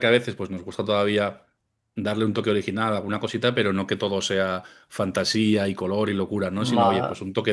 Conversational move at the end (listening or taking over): listening